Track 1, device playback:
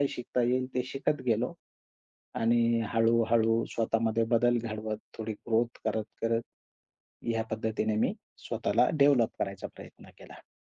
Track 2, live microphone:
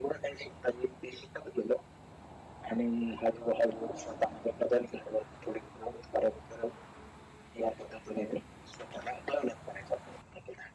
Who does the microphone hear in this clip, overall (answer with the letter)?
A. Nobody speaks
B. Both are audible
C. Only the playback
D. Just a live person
C